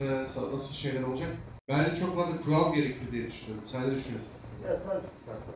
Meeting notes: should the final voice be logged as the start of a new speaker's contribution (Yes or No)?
Yes